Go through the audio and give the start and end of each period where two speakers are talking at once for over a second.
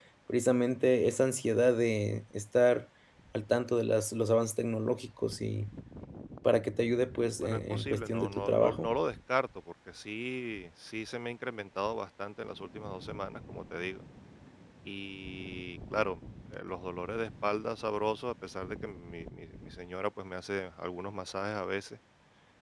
7.4-8.9

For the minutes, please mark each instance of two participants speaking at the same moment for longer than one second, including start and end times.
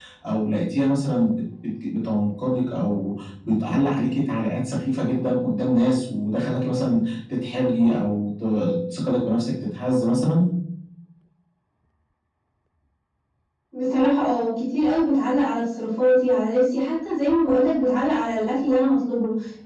none

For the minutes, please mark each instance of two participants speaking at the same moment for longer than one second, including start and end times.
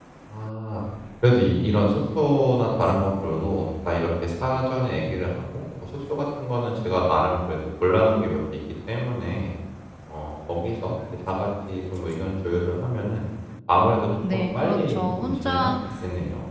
14.3-15.7

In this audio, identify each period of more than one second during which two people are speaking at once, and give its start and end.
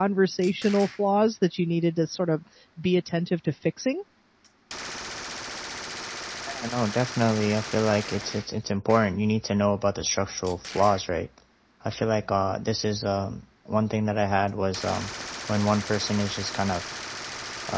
none

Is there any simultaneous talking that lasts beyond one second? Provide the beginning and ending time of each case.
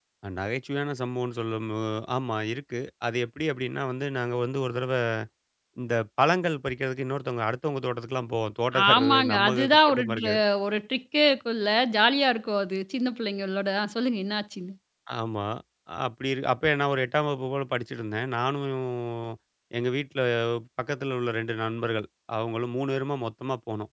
8.9-10.3

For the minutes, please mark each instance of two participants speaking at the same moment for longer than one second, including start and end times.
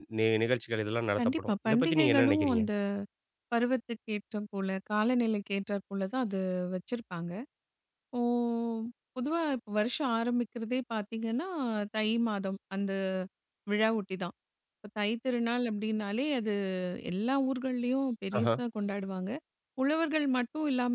1.2-2.6

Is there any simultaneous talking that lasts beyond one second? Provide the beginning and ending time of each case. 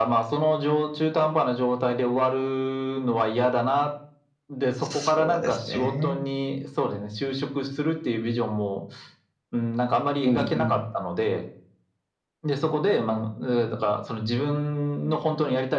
4.8-6.2

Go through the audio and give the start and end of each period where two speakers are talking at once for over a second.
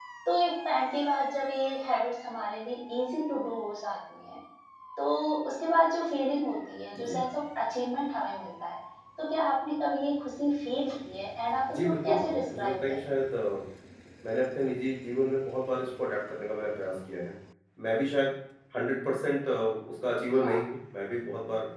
11.7-13.2

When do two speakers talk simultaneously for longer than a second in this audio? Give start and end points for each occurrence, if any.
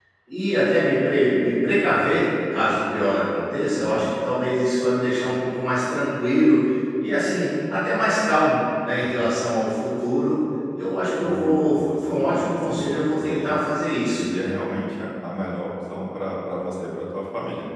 11.2-13.6

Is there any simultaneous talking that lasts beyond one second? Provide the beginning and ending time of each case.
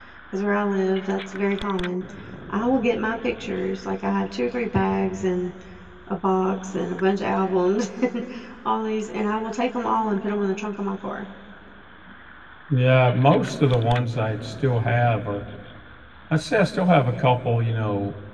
none

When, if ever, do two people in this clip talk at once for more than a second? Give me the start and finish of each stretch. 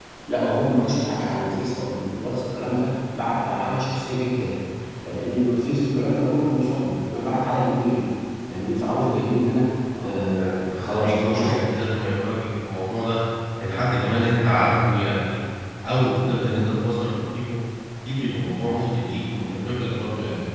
10.0-11.8

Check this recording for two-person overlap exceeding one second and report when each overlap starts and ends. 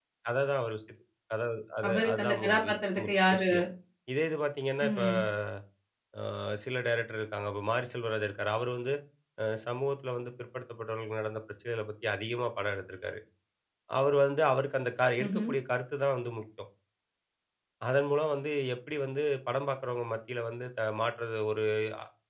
1.9-3.4

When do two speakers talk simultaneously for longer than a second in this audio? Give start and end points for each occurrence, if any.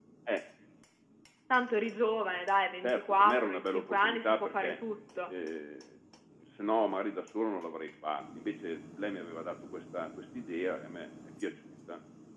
2.8-4.8

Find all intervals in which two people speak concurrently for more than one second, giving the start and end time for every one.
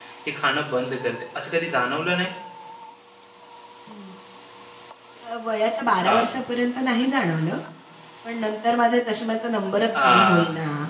none

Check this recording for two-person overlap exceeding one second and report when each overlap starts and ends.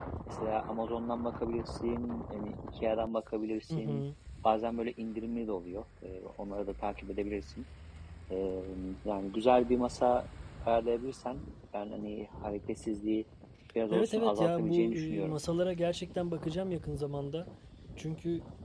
13.9-15.4

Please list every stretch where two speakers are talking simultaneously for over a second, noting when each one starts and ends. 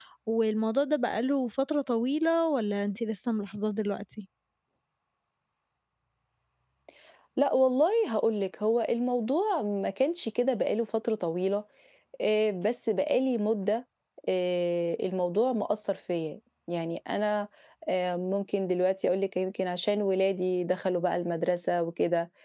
none

